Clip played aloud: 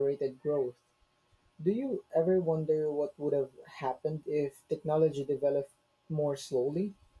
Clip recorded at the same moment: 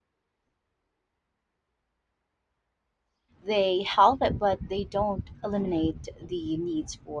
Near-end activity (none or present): present